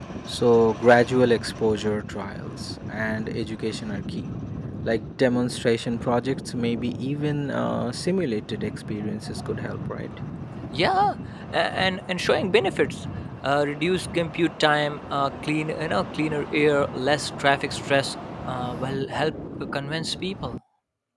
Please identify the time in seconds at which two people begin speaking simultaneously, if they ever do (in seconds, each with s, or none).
none